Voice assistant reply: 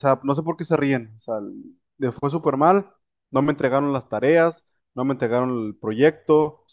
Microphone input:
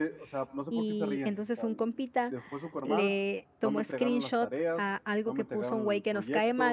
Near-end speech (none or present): present